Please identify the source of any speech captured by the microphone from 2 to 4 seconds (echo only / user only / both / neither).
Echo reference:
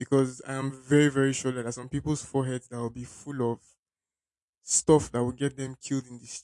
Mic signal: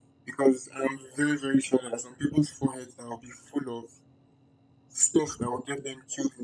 echo only